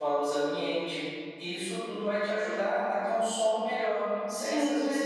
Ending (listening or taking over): taking over